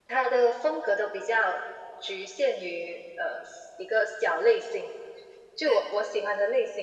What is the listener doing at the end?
listening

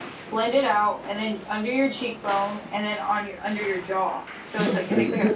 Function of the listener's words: taking over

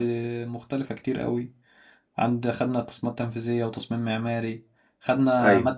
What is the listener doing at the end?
listening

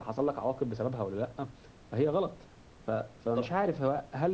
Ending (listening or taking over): listening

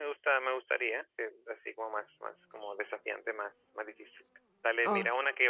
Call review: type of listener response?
listening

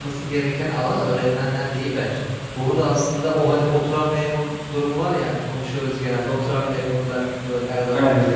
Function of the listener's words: listening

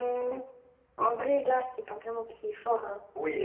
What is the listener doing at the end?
taking over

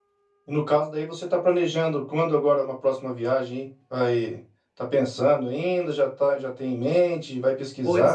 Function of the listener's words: taking over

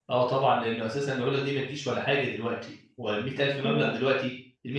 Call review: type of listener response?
listening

